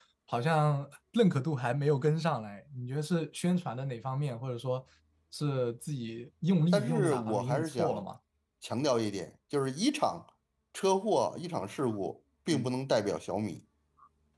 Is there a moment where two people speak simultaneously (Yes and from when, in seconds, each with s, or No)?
Yes, from 6.7 s